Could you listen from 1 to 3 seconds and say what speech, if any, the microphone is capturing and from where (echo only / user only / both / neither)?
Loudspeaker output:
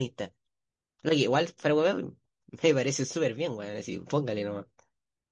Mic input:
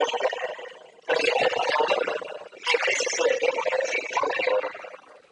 echo only